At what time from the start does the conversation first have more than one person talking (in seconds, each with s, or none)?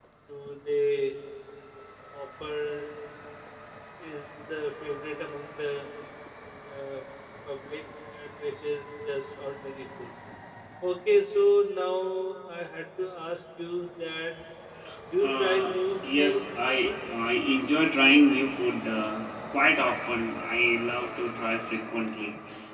15.2 s